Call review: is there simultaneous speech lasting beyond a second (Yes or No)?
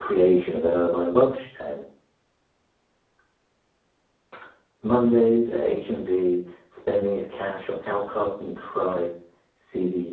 No